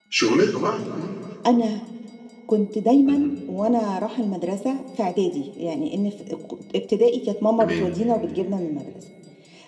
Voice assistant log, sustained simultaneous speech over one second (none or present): none